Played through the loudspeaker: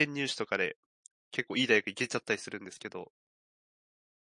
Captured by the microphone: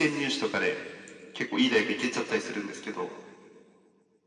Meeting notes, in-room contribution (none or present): none